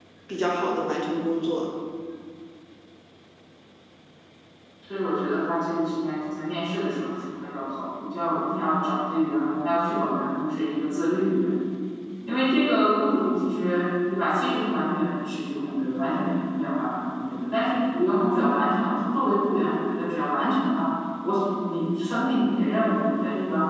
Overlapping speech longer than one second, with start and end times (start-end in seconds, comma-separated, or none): none